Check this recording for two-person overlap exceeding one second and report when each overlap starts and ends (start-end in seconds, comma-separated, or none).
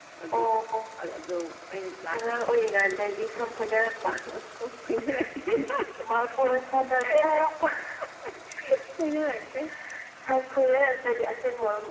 none